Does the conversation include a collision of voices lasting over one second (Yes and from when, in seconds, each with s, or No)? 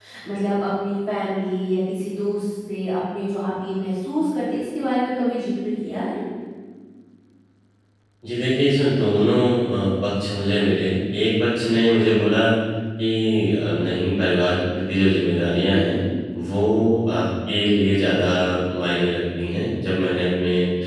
No